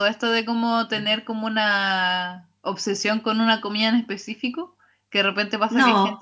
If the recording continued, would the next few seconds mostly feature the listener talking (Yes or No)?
No